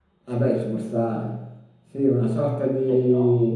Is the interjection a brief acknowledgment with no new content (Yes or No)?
Yes